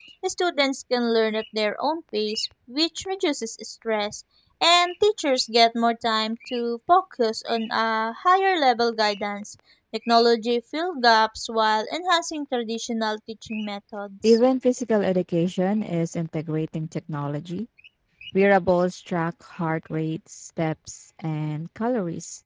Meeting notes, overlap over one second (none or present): none